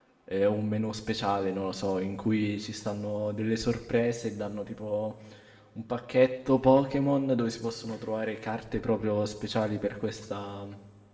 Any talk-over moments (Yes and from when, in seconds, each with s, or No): No